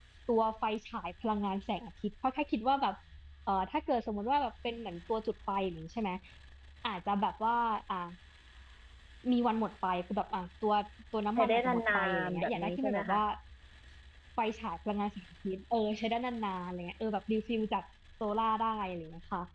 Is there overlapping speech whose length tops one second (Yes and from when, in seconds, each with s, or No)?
Yes, from 11.4 s